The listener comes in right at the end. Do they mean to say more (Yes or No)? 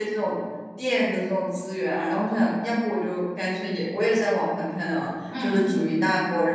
No